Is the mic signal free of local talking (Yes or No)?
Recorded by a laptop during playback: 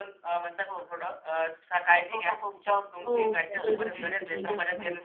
No